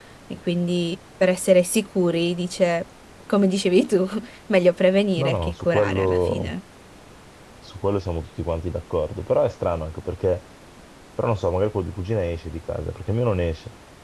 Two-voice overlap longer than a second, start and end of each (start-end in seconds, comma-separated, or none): 5.2-6.5